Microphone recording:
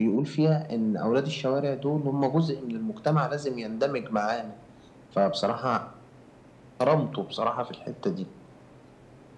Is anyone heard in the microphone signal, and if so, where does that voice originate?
echo only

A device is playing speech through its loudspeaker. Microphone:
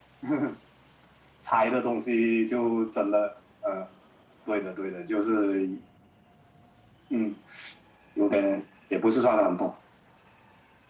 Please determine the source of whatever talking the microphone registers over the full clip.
echo only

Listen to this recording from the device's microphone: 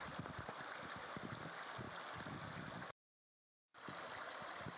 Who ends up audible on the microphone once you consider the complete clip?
neither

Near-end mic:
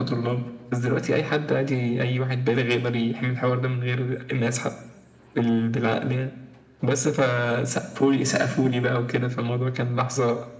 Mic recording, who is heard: echo only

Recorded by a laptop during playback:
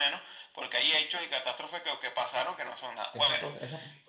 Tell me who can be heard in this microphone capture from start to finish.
both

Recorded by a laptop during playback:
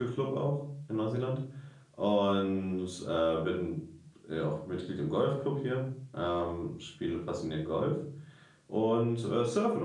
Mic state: user only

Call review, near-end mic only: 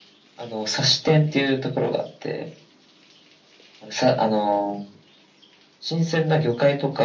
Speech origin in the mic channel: echo only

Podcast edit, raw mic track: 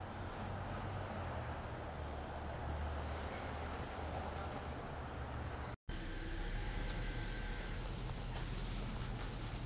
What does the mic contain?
neither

